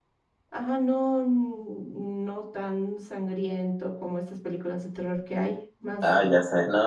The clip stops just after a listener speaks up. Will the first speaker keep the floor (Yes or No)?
No